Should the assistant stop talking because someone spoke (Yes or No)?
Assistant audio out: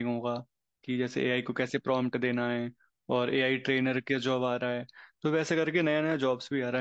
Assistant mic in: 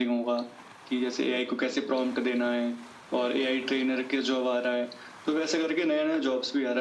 No